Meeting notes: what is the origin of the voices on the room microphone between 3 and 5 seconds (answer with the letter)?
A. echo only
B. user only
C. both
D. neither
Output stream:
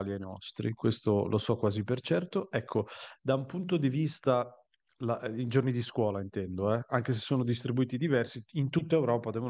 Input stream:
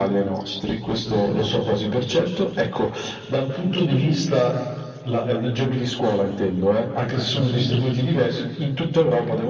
A